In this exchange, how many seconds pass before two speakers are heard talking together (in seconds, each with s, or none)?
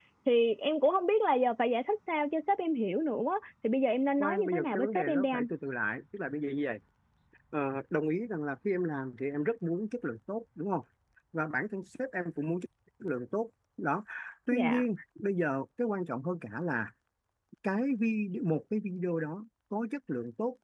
4.2 s